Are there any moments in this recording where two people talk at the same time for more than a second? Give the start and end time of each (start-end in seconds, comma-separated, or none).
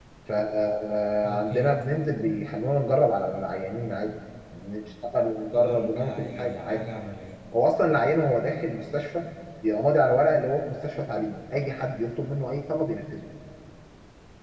5.5-6.8